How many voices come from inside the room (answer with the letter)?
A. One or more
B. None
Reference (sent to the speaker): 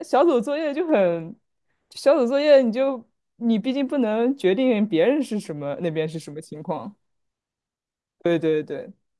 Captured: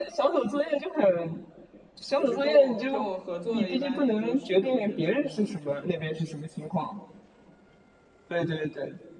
A